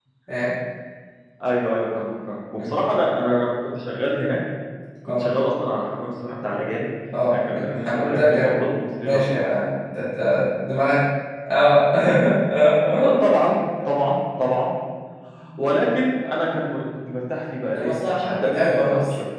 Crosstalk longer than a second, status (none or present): present